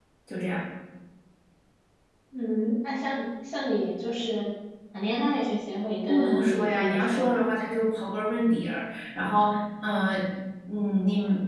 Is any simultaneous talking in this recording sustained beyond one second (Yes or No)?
Yes